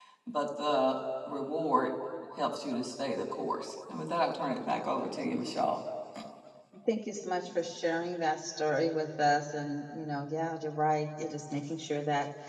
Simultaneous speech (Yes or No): No